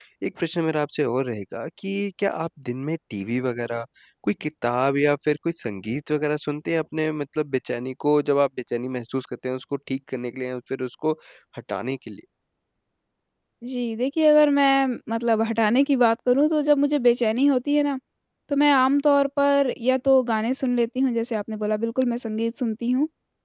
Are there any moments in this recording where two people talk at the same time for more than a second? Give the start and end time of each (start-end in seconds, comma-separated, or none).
none